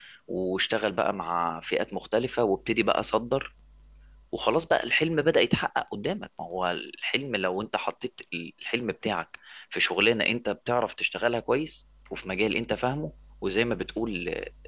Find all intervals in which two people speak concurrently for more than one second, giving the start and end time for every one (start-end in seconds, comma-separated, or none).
none